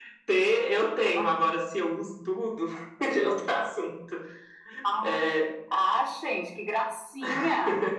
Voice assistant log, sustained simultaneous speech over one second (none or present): none